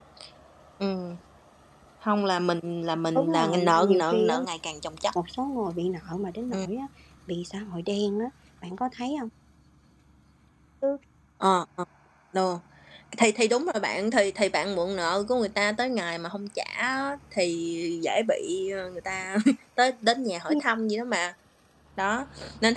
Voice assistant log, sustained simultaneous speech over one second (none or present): present